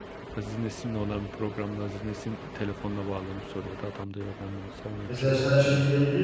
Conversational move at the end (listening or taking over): taking over